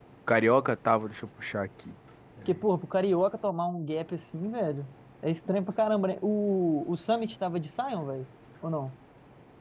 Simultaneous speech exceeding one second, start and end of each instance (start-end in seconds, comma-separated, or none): none